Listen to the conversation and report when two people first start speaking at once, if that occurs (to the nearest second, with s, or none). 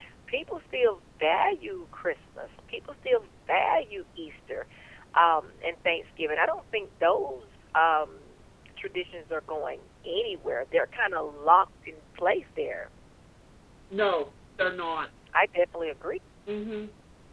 none